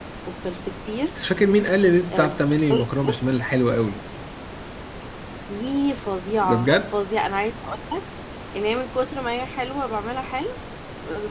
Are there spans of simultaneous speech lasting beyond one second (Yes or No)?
No